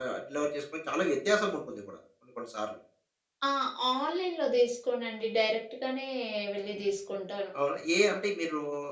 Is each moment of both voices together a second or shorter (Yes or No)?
Yes